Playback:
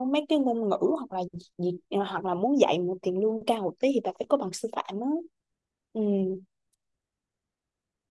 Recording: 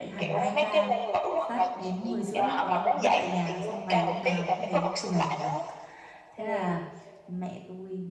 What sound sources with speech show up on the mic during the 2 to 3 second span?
both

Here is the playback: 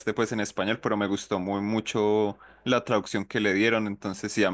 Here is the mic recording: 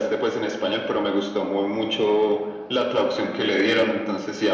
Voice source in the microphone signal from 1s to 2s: echo only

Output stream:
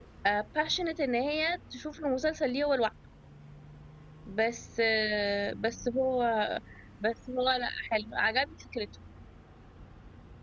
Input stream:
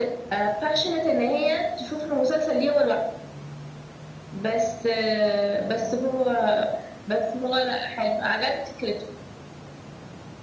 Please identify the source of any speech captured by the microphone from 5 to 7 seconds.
echo only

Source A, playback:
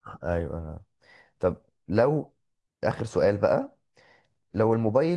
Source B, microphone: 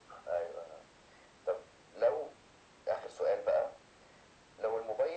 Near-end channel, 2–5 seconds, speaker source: echo only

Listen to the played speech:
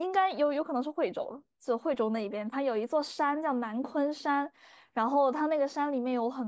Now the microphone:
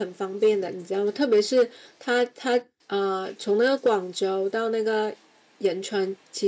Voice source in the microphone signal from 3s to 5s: user only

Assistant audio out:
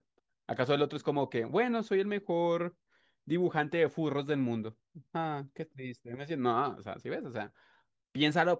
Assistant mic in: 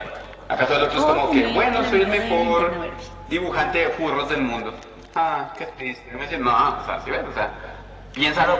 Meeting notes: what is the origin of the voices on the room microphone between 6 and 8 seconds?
echo only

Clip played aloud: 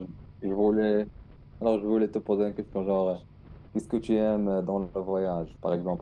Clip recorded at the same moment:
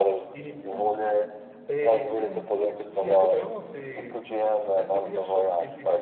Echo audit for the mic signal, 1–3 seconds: both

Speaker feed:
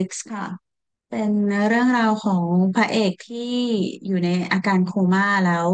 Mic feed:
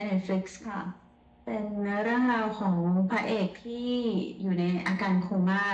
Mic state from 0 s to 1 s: echo only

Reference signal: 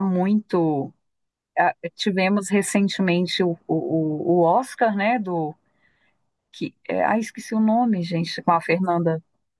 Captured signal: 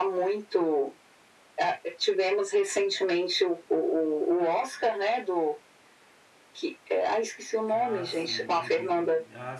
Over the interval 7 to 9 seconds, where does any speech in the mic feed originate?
both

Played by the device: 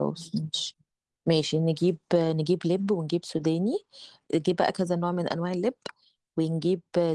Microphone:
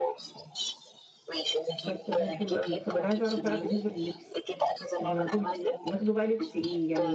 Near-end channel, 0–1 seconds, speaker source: echo only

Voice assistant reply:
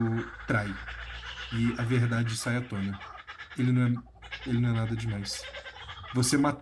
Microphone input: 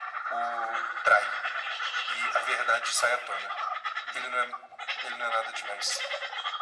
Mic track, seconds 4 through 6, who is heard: echo only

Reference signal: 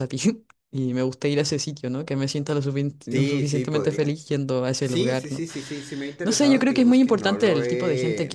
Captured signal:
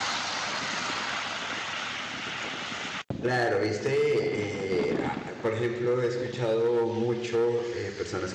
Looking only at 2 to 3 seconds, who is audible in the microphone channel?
neither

